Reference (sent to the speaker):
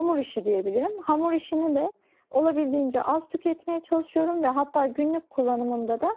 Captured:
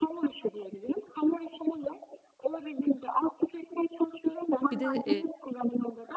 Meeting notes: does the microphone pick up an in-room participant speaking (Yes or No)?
Yes